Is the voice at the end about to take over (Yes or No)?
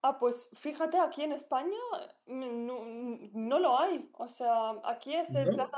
No